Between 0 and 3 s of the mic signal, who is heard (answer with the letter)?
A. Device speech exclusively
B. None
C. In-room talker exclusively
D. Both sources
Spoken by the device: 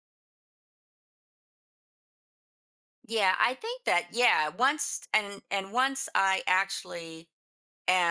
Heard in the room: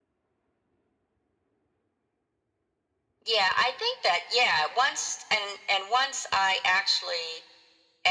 B